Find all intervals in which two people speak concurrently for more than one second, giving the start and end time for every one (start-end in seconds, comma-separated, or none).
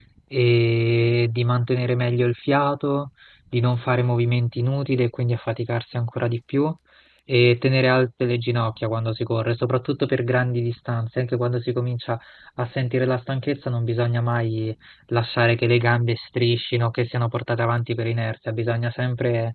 none